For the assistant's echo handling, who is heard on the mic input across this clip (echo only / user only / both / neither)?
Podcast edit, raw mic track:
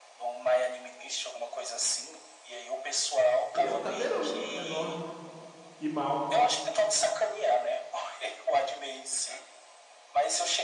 both